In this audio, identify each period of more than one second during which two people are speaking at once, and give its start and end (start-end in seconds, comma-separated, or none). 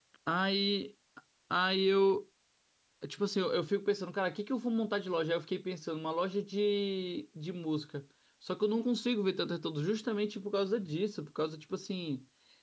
none